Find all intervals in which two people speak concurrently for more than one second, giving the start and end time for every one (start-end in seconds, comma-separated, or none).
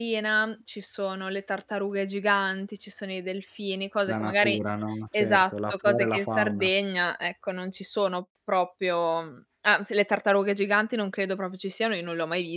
5.1-6.7